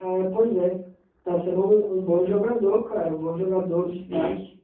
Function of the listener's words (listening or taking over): taking over